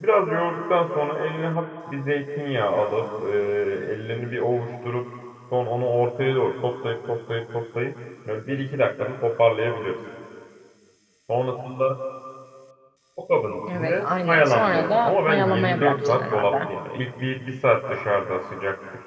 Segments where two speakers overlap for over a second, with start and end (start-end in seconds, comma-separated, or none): 13.7-16.6